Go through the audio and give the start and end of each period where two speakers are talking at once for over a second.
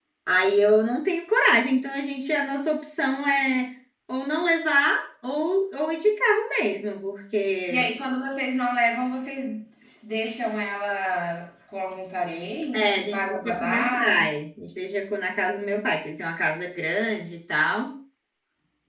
12.7-14.2

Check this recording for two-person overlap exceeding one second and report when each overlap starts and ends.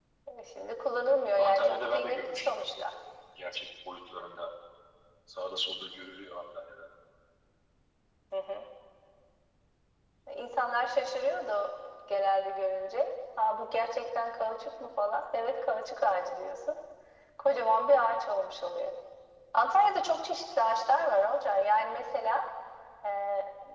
1.4-2.8

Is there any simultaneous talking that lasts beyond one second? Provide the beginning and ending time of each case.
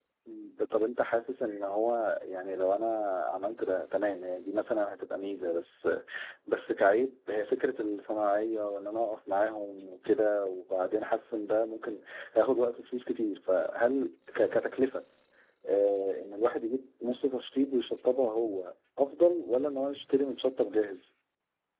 none

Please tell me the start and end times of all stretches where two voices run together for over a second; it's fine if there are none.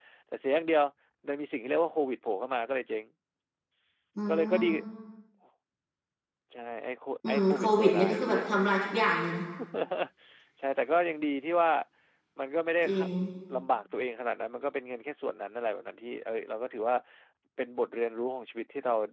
7.3-8.5

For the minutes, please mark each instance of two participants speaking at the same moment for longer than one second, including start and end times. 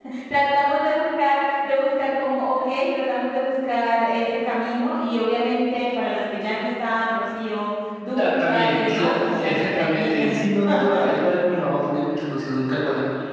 8.2-10.3

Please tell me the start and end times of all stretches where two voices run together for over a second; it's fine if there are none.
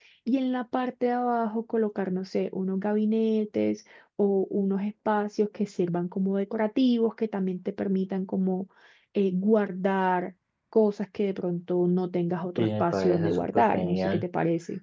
12.6-14.2

